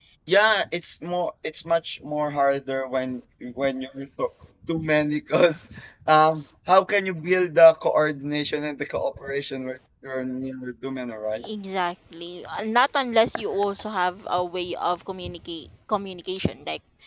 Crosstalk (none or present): none